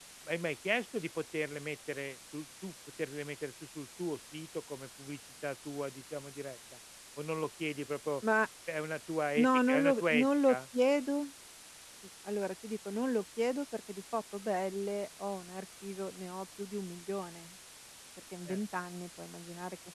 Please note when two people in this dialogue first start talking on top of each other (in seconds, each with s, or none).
9.4 s